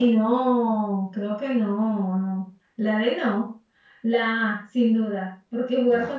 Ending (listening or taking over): listening